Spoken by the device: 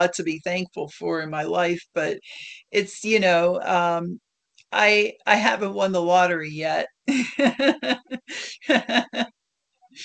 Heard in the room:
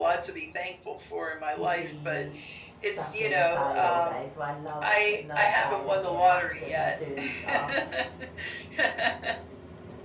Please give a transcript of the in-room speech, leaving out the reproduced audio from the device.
to be stuck inside all day. So I love getting outside and being active and doing stuff.

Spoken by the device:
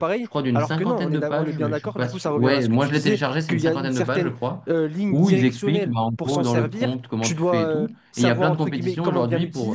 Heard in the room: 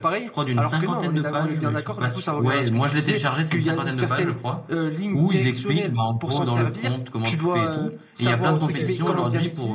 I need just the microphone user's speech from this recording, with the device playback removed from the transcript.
ok, je vois.

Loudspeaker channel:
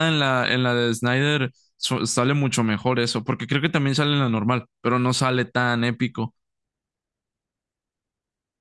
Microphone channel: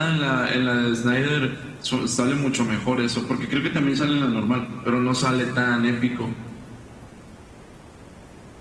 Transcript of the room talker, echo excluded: none

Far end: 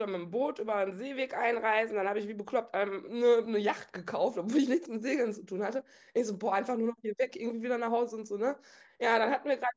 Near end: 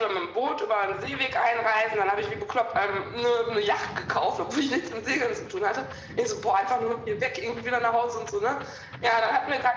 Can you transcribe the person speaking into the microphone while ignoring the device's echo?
none

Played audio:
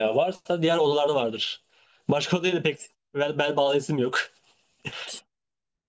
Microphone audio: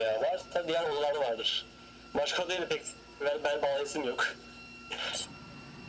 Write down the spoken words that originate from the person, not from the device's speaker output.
none

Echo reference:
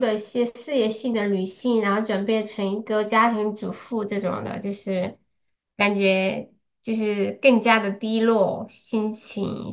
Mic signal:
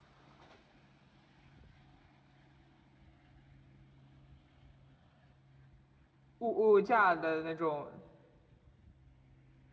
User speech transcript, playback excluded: 物物价的那种

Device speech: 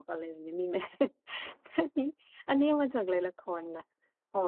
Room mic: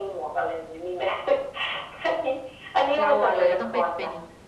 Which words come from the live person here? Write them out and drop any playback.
เราอะเลยต้องไปเป็น

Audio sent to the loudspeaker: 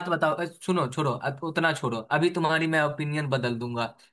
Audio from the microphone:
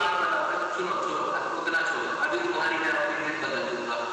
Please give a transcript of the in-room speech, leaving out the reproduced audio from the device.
none

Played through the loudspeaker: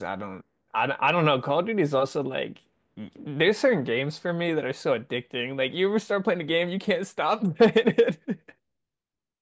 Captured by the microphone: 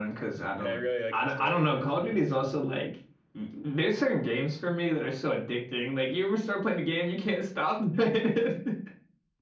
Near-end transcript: And I really like the story modes of those games.

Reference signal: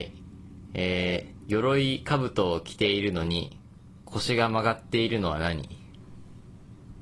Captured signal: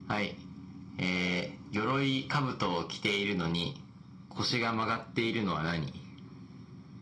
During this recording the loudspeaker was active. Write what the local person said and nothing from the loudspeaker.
none

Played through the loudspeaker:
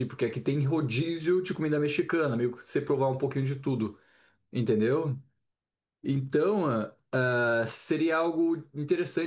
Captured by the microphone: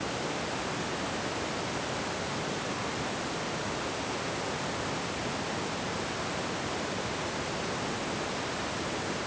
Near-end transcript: none

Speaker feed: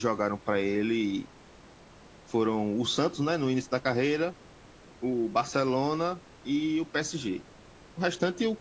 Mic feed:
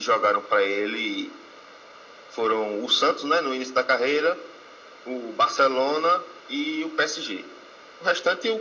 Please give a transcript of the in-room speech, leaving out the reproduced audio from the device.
none

